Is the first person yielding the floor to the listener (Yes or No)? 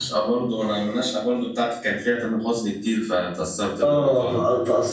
Yes